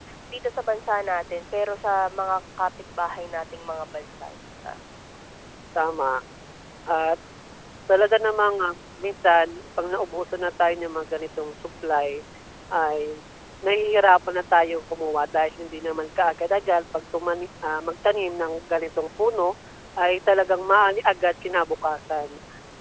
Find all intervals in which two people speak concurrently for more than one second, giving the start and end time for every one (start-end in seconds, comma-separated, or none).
none